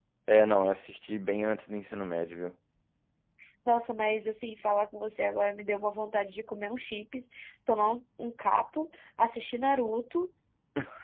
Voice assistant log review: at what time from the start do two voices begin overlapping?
none

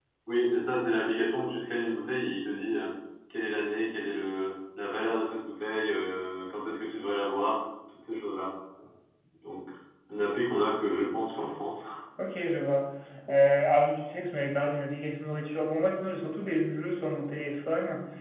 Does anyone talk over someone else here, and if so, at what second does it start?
none

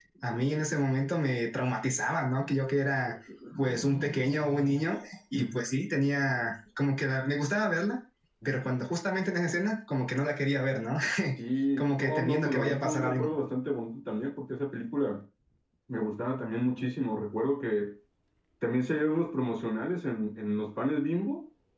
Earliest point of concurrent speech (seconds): 11.8 s

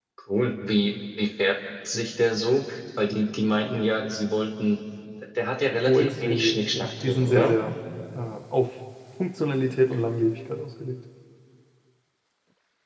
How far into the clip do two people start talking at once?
5.8 s

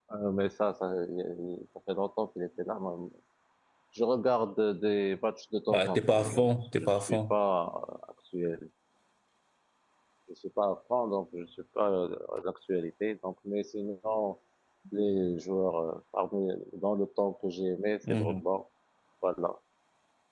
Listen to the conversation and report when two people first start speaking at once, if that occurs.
5.7 s

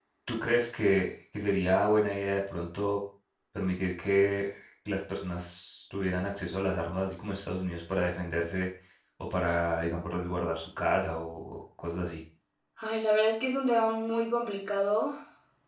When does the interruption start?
none

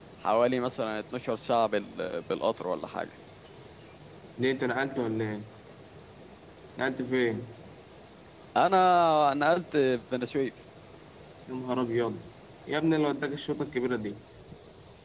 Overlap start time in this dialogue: none

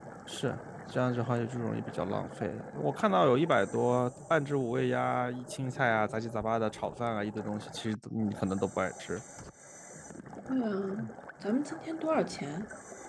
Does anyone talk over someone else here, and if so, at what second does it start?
none

